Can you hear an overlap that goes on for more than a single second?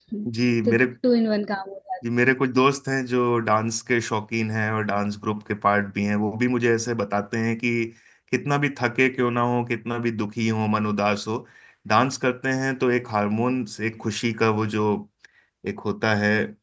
No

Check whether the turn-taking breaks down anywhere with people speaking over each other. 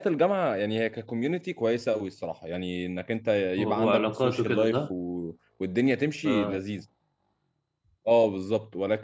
Yes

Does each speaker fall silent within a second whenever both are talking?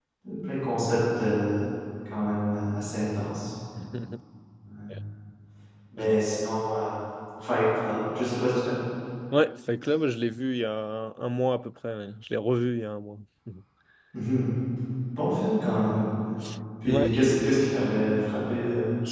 Yes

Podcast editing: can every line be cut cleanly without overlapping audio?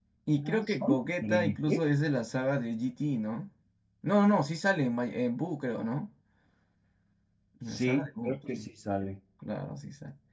No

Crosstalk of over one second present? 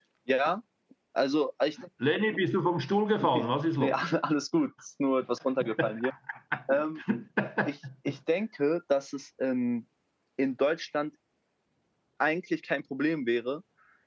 No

